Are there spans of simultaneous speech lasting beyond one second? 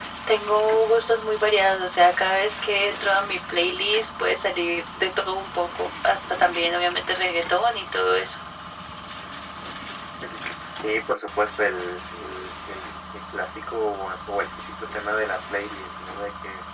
No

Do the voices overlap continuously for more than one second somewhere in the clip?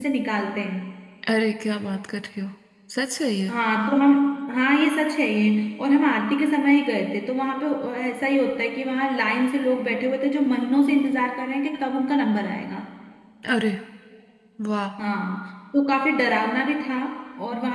No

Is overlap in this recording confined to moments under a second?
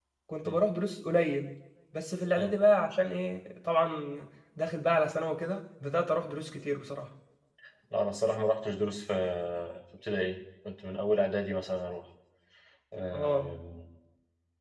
Yes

